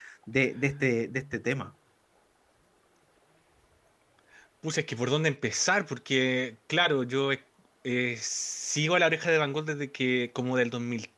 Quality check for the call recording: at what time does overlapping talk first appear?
none

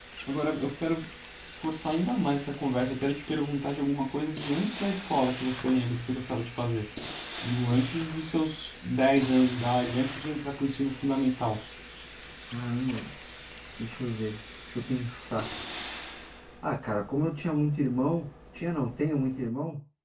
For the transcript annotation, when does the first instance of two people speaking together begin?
none

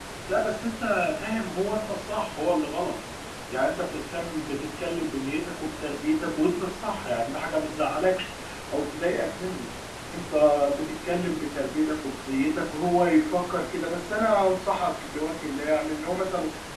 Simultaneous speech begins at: none

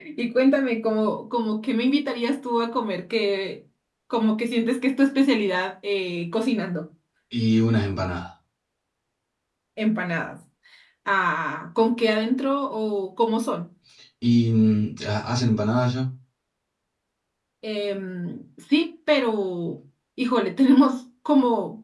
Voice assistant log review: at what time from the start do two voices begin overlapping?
none

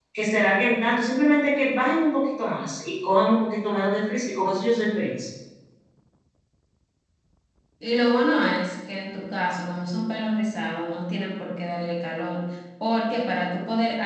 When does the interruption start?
none

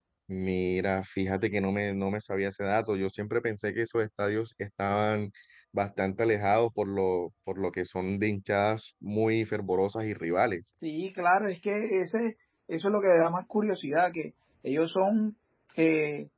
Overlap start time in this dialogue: none

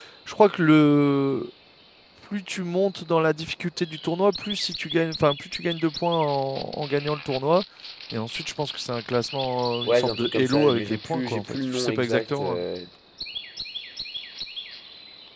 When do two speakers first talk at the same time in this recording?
9.8 s

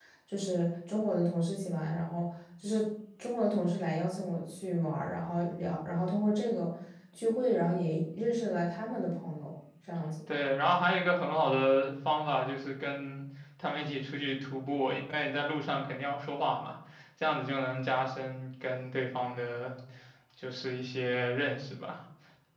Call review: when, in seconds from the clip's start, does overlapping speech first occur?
none

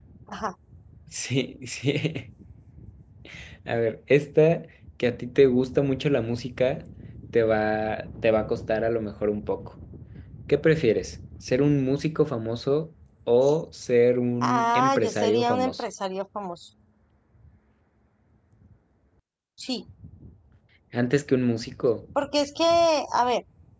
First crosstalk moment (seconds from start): 14.4 s

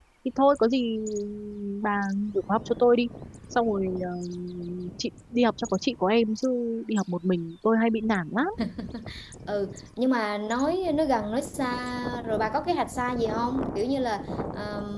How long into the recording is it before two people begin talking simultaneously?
none

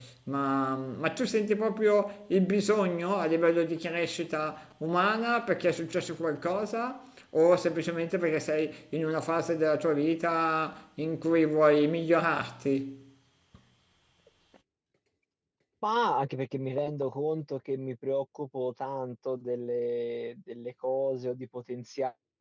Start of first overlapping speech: none

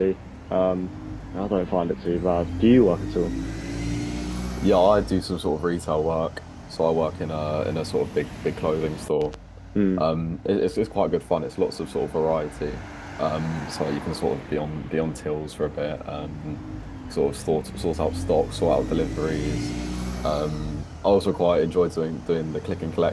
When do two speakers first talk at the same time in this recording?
none

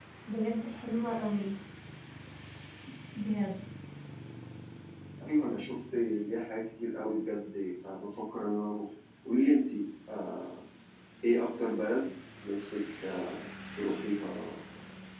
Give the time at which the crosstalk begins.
none

